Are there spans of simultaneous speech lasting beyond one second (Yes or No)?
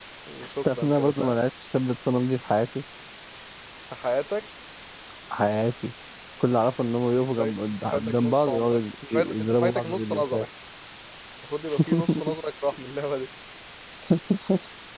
Yes